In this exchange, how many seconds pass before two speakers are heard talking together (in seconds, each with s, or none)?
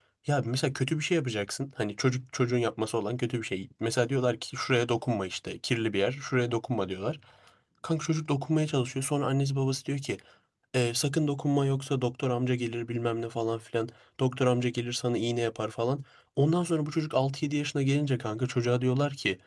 none